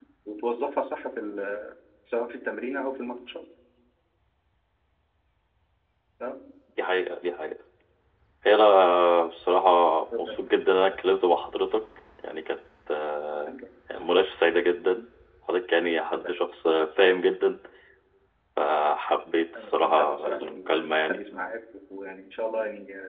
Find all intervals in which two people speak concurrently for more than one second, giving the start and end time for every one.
19.6-21.2

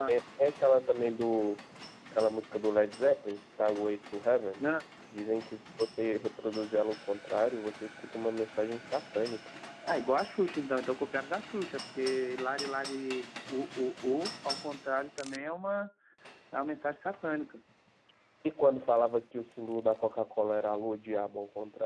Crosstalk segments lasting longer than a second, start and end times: none

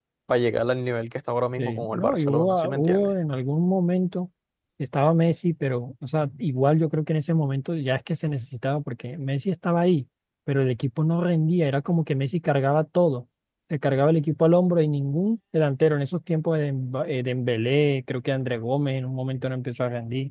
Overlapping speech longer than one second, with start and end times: 1.6-3.1

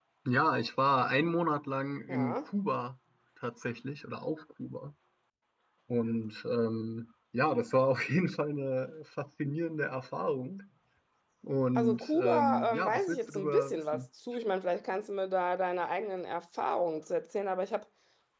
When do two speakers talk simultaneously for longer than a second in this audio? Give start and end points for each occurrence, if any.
11.8-14.0

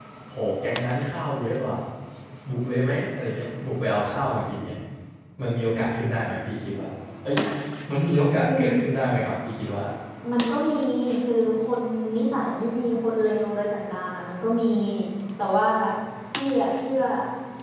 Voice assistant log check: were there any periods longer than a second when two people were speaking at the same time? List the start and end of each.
none

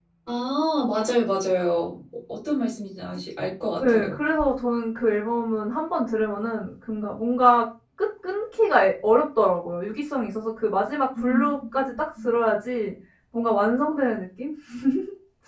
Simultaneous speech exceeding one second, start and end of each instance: none

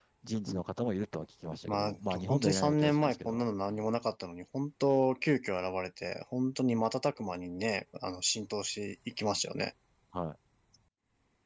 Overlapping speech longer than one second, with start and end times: 1.7-3.9

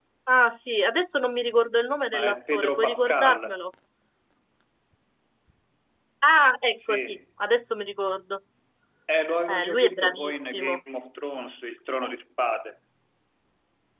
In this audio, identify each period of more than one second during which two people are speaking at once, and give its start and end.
2.1-3.6, 9.5-10.8

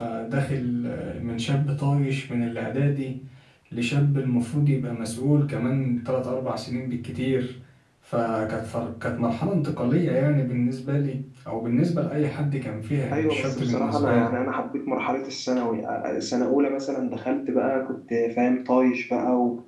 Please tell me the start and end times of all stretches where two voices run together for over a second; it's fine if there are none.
13.1-14.3

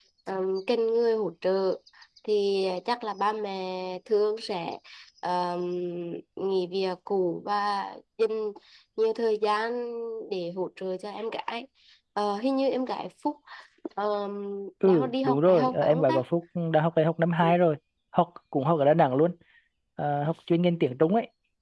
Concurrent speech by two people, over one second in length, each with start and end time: 14.8-16.2

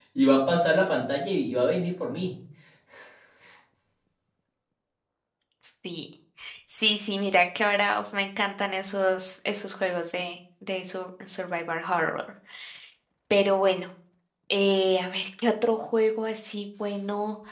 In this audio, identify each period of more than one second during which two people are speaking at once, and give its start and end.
none

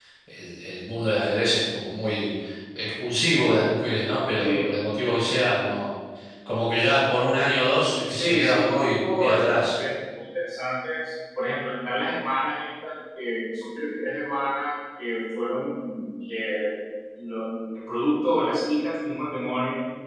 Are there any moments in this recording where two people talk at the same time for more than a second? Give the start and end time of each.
8.1-9.7

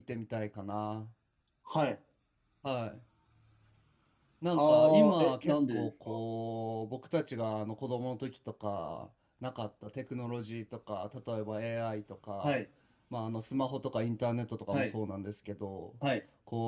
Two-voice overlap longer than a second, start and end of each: 4.5-6.2

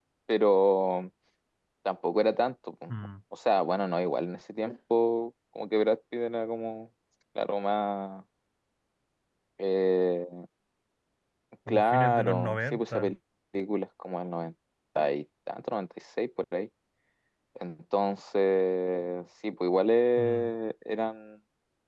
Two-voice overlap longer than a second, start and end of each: 11.7-13.0

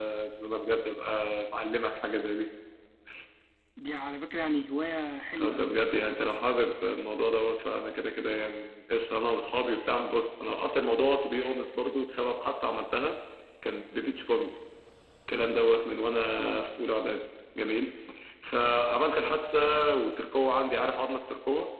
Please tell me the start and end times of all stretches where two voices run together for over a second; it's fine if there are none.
none

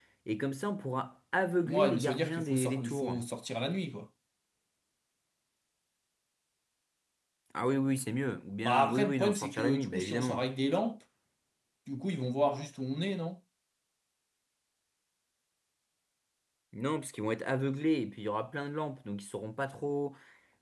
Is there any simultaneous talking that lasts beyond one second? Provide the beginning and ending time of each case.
1.6-3.2, 8.6-10.4

